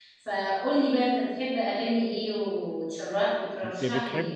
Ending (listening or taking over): taking over